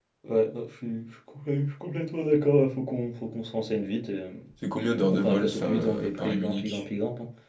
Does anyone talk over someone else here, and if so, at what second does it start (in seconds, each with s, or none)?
5.1 s